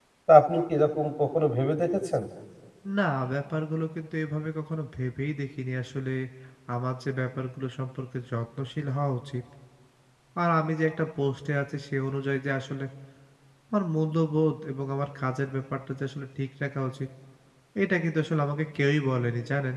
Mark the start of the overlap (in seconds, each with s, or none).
none